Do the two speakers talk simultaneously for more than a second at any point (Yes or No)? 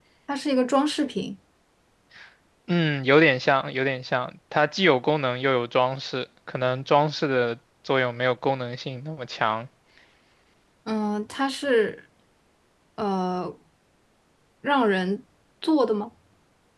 No